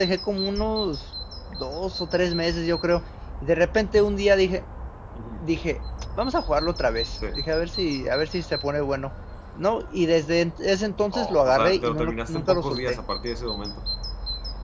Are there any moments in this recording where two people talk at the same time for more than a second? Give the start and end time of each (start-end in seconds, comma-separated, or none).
11.2-13.0